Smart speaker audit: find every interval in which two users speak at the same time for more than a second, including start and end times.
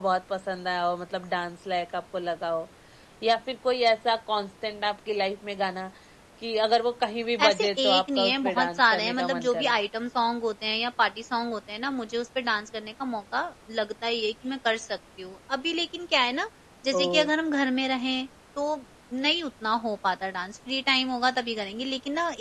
7.4-9.7

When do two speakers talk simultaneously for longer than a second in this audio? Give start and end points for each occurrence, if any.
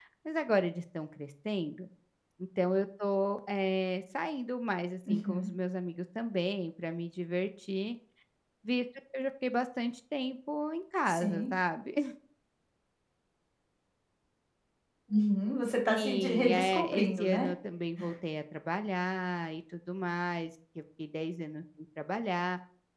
15.9-17.5

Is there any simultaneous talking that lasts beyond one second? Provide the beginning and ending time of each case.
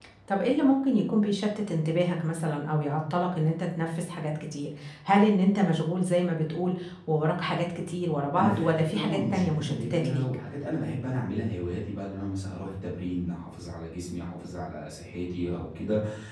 8.4-10.2

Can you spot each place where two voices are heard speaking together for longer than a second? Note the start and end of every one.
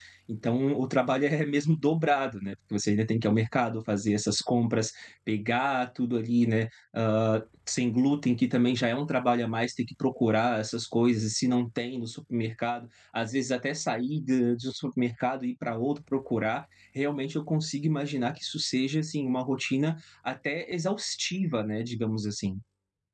none

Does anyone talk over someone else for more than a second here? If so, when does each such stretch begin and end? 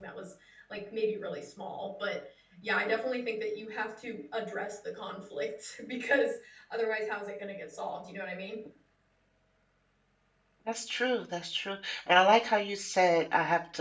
none

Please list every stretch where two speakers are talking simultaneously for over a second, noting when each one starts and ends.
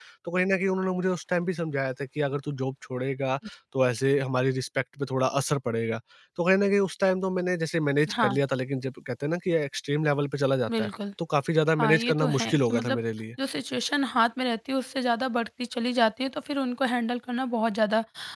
11.8-13.0

